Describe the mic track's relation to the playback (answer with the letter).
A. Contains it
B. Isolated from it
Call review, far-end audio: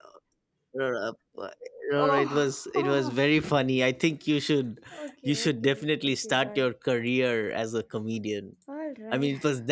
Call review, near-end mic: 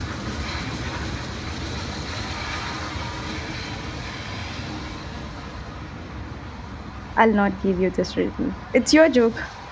B